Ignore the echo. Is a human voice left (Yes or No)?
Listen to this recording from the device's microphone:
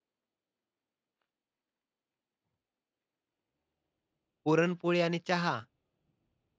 Yes